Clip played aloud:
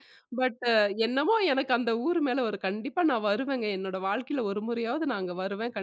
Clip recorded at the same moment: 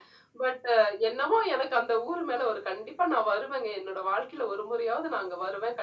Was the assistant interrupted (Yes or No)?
No